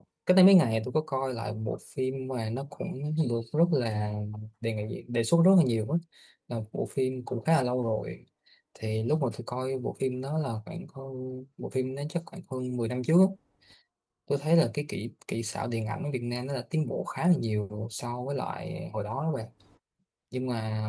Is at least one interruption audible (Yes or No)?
No